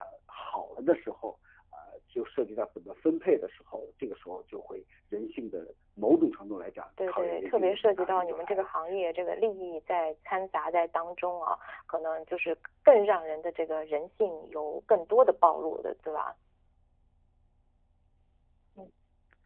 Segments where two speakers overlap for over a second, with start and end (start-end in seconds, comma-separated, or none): 7.1-8.6